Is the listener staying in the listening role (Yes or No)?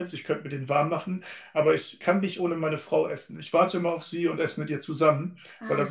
Yes